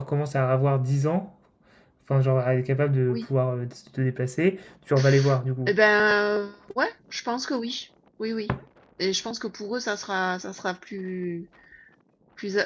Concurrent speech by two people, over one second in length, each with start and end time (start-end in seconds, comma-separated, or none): none